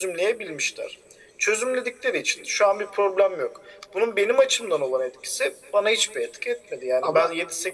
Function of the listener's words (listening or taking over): listening